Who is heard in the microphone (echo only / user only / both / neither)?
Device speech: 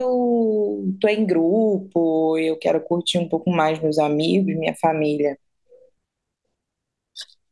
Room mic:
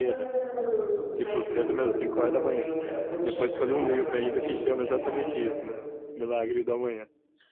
both